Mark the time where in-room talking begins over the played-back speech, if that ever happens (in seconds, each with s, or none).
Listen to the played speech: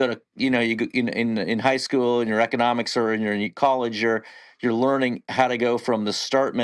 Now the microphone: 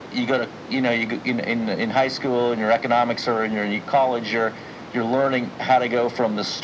none